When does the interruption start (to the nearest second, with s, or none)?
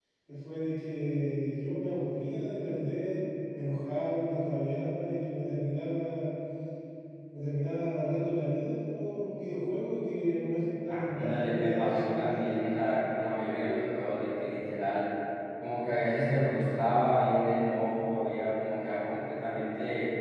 11 s